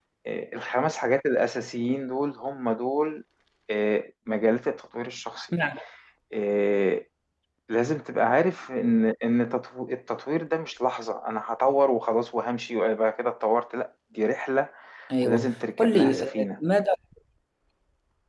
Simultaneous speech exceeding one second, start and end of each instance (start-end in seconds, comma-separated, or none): 15.2-16.4